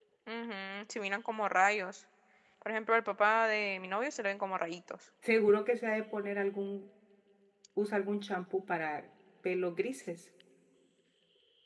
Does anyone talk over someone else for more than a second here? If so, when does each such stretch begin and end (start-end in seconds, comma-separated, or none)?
none